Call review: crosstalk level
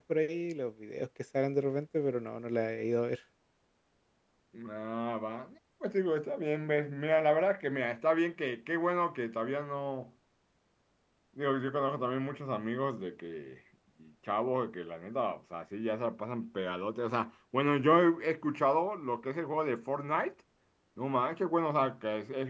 none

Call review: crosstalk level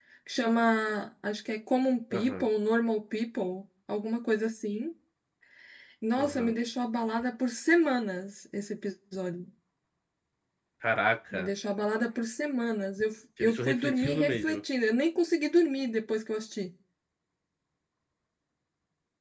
present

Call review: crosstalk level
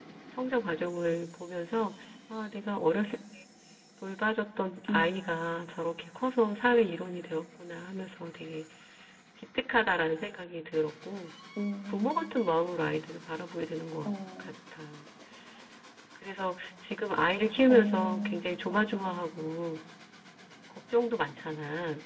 present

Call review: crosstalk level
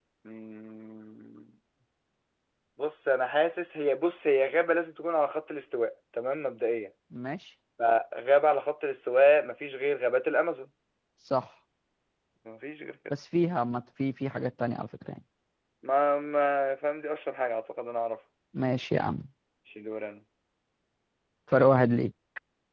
none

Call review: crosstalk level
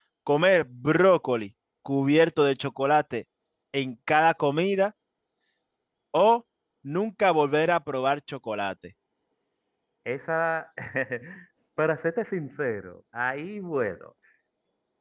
none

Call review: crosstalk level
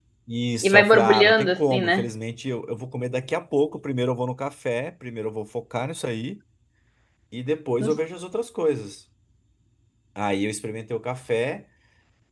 present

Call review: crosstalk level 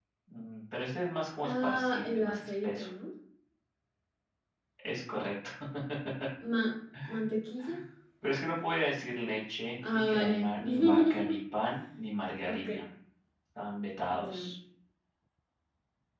present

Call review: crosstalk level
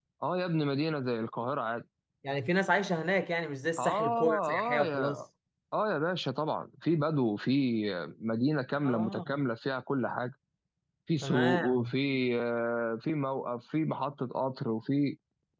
present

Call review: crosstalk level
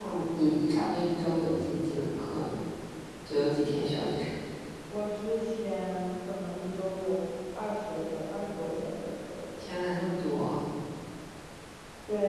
none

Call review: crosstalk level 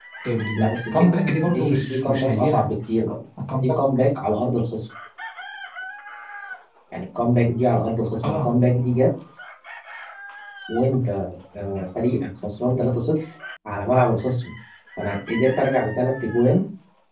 present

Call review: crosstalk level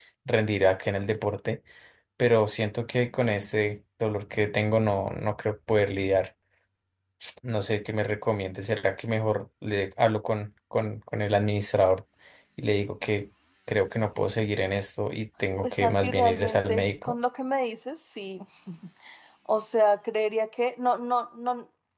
present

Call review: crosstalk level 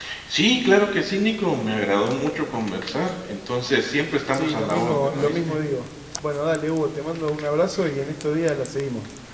present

